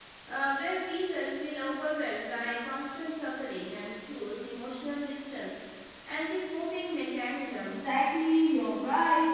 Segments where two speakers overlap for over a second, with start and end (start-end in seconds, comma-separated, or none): none